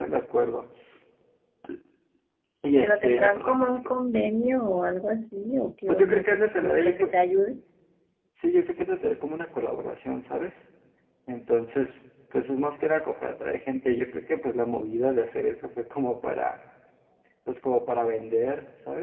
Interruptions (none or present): present